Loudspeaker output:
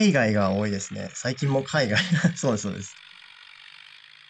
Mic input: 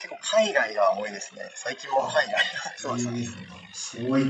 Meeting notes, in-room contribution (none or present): present